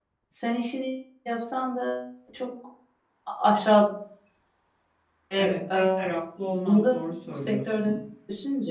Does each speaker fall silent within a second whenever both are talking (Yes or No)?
No